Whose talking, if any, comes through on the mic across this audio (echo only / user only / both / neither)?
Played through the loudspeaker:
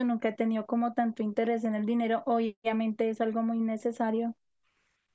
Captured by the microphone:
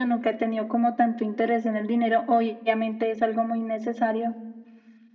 echo only